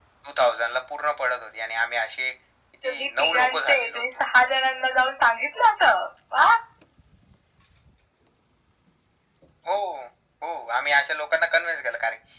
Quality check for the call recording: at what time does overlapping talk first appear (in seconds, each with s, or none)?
2.8 s